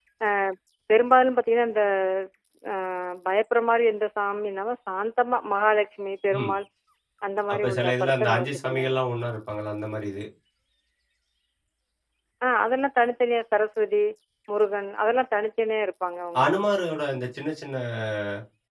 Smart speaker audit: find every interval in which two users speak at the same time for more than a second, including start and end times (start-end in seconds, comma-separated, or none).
7.5-8.9